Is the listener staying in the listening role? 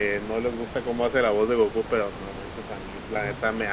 Yes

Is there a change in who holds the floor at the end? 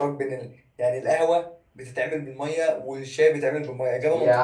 Yes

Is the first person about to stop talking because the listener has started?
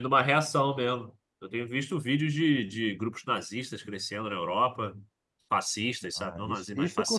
Yes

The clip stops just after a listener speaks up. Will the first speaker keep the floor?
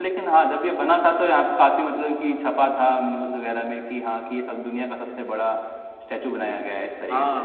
No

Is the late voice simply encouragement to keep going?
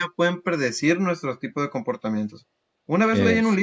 Yes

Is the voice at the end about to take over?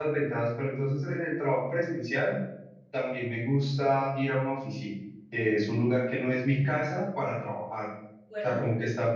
No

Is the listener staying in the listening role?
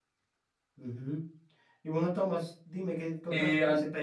Yes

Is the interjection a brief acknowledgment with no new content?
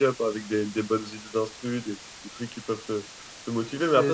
Yes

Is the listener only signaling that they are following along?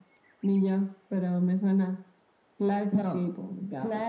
No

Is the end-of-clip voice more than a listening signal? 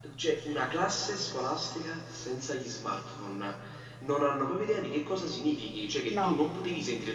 No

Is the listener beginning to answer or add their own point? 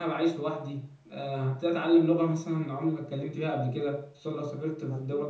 No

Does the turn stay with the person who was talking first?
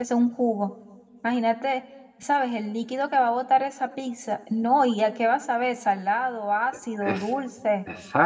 No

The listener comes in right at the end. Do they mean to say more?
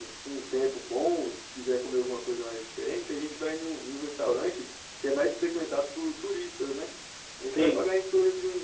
No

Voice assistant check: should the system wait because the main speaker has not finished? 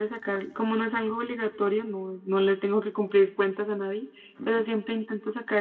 Yes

